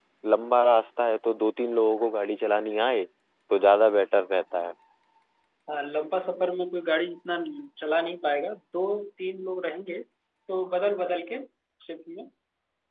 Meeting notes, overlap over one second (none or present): none